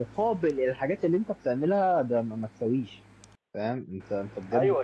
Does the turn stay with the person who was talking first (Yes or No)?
No